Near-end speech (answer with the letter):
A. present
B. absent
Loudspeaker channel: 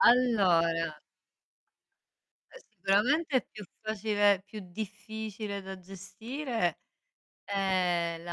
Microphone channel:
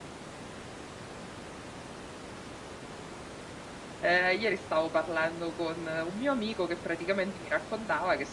A